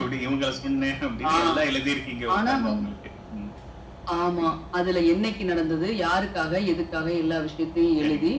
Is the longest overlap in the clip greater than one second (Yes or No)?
No